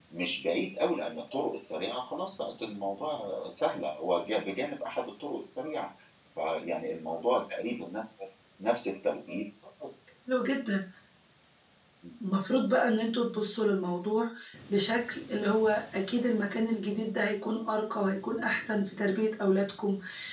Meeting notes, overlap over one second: none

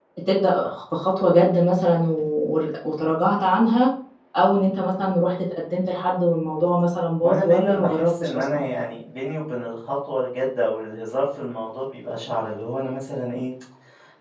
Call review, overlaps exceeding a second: present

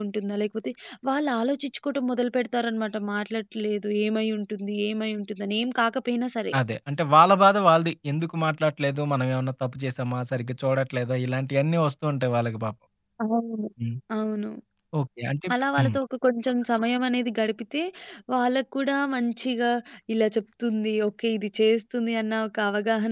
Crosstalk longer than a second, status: none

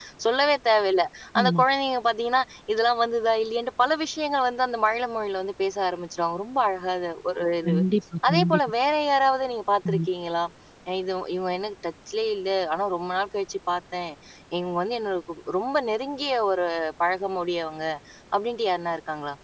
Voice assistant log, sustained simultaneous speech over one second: none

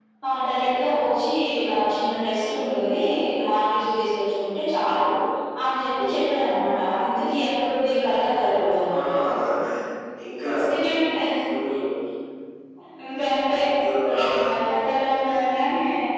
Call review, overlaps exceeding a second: none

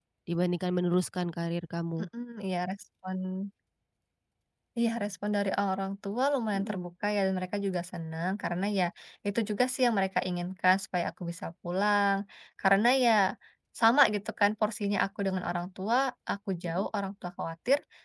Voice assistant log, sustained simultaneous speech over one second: none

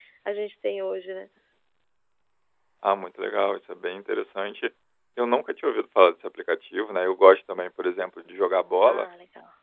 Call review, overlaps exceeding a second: none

